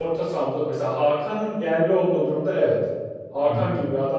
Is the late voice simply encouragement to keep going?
Yes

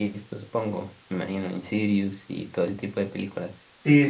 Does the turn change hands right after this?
Yes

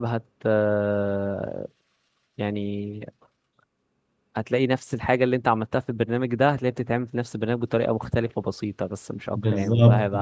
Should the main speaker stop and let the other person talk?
Yes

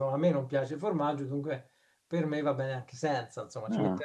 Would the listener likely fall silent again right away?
Yes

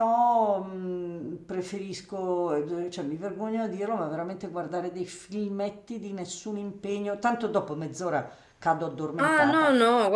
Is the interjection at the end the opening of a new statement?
Yes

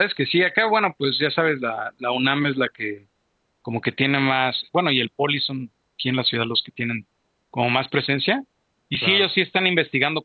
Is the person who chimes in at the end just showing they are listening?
Yes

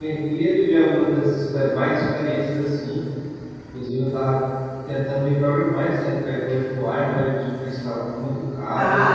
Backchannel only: No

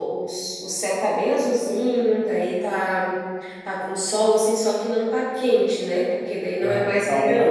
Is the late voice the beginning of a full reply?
Yes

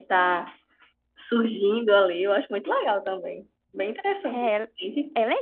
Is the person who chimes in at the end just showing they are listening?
No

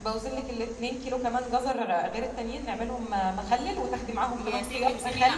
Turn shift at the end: Yes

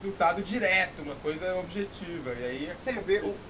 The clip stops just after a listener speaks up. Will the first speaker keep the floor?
No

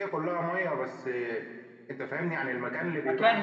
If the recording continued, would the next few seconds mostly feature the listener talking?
Yes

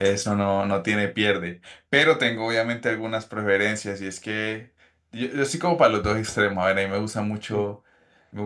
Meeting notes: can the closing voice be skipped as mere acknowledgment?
Yes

